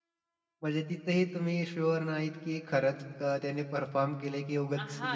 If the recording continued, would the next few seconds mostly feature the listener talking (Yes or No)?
Yes